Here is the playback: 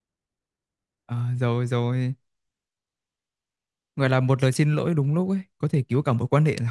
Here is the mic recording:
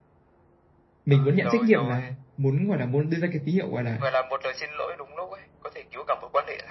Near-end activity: present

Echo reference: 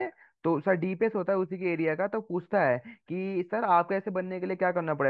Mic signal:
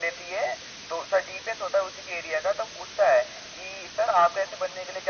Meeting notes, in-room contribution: none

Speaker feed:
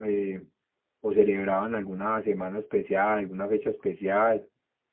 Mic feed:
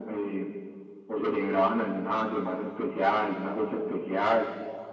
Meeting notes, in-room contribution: none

